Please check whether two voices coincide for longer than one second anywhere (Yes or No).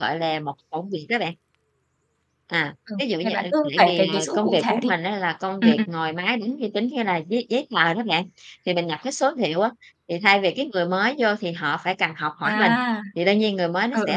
Yes